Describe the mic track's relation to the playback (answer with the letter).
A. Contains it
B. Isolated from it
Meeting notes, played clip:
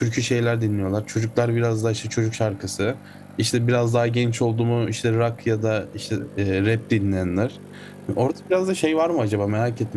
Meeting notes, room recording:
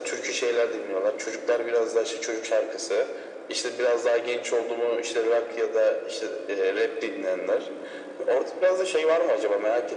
A